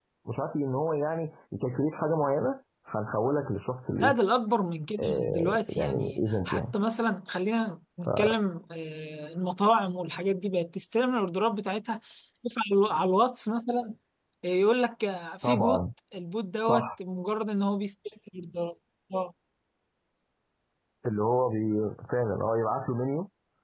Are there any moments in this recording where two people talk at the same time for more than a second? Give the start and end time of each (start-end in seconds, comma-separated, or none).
5.0-6.7